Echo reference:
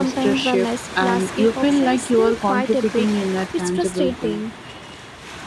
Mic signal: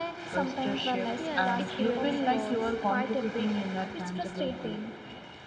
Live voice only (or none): Yes, it really was.